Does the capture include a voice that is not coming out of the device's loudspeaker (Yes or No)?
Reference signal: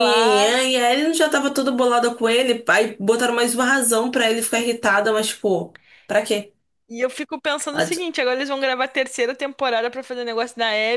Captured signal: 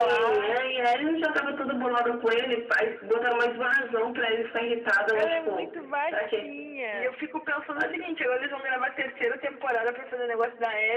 Yes